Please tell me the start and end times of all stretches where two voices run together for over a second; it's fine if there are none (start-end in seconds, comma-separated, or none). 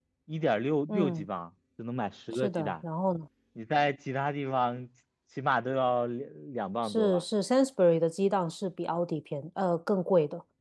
none